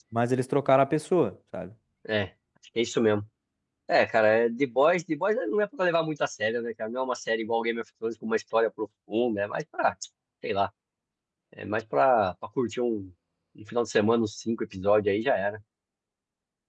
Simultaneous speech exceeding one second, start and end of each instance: none

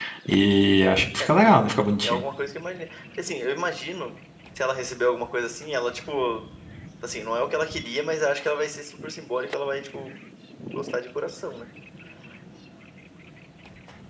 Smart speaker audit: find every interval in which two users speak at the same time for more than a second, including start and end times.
none

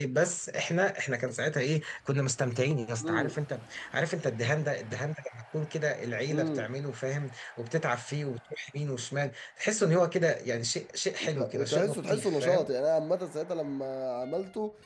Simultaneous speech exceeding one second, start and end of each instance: 11.3-12.7

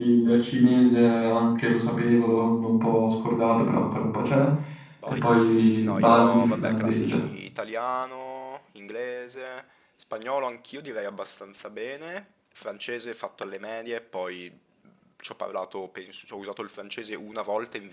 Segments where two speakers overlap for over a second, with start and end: 5.8-7.2

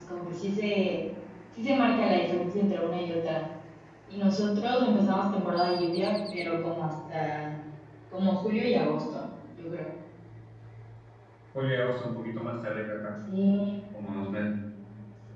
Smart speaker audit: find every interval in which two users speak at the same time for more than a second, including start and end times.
none

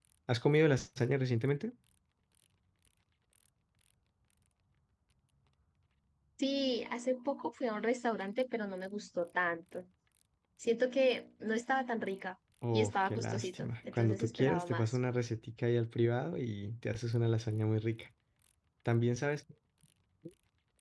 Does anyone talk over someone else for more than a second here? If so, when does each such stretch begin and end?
12.7-15.0

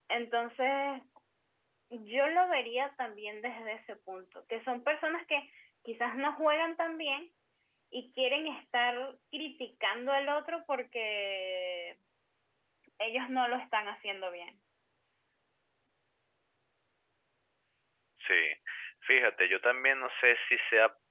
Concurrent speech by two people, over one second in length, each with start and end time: none

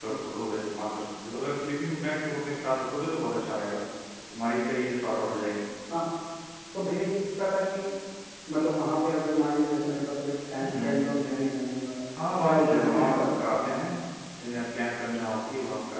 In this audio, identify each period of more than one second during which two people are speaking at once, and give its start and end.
12.3-13.8

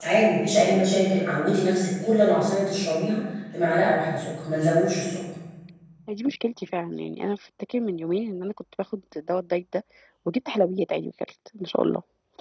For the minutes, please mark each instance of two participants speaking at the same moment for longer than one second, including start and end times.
none

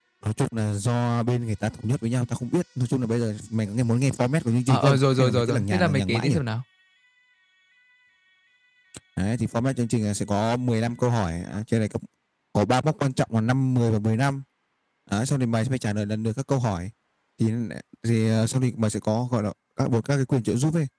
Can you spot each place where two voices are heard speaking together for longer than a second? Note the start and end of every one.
4.7-6.3

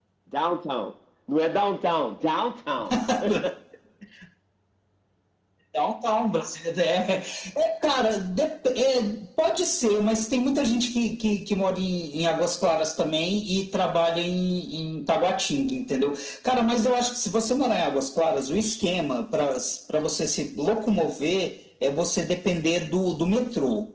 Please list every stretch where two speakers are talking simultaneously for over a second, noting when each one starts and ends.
none

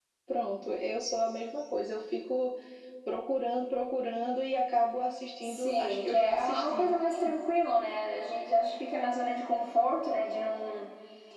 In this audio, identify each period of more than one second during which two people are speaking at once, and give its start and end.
5.4-7.0

